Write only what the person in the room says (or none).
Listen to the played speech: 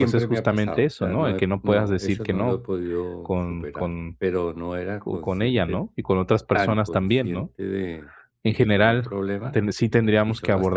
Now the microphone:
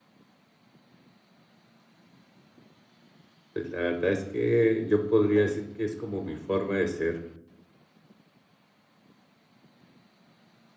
Pues la verdad es que yo podría decir que es como mi forma de ser.